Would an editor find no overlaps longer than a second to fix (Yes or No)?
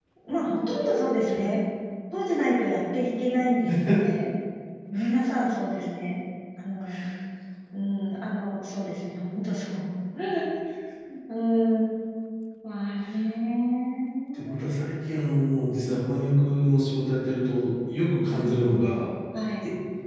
Yes